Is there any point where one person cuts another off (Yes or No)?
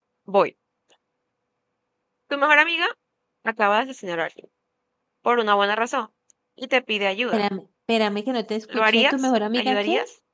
Yes